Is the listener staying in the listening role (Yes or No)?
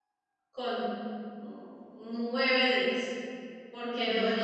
Yes